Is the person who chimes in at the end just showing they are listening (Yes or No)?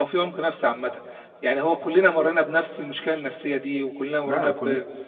No